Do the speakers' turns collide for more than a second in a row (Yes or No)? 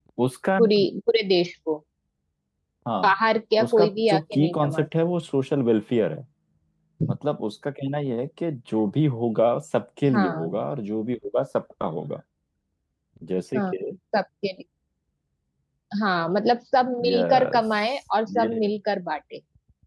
Yes